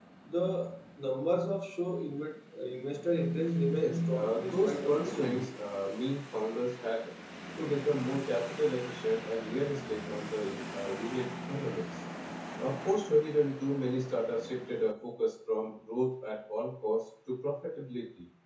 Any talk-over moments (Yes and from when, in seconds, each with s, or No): Yes, from 3.7 s